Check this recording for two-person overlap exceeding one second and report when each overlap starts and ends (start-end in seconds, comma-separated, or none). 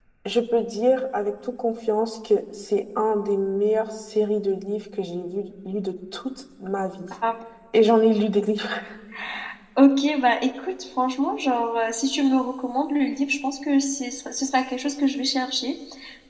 none